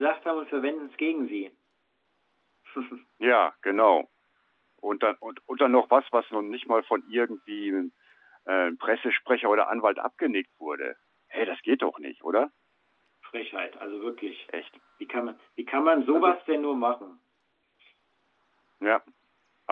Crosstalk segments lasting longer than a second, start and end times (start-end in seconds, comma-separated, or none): none